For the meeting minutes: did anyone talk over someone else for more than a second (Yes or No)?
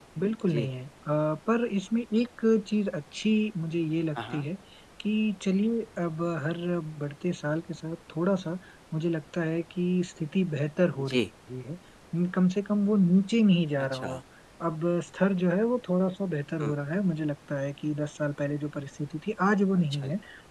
No